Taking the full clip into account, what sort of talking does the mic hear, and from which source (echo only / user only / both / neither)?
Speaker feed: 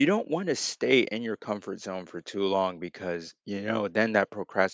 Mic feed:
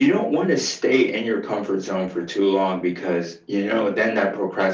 echo only